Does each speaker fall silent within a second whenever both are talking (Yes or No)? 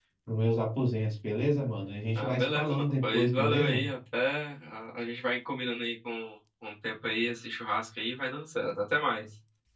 No